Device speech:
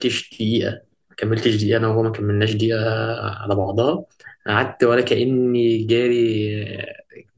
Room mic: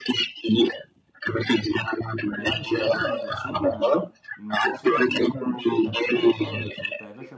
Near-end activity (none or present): present